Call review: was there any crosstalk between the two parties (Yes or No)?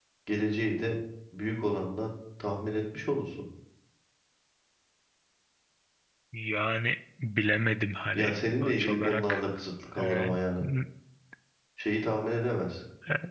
Yes